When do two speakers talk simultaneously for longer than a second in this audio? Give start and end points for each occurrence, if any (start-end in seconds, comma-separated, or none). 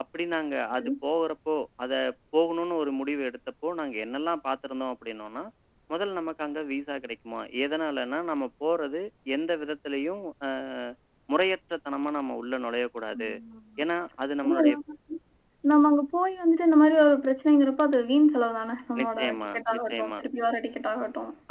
19.0-20.2